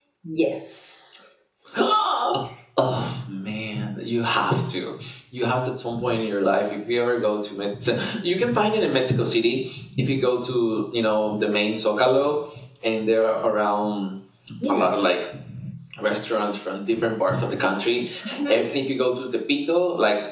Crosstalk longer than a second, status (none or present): none